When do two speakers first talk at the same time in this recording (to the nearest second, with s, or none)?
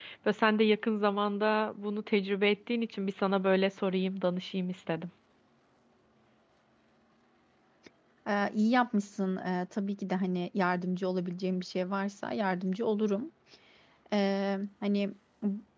none